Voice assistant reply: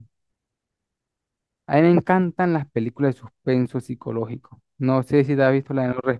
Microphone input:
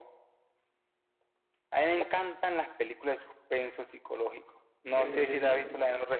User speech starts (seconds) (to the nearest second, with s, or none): 5 s